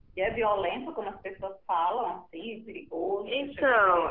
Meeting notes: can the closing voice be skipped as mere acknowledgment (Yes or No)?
No